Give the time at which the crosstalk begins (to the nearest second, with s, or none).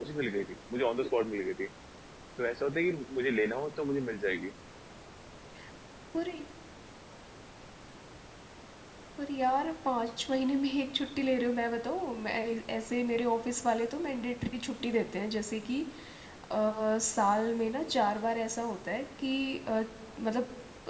none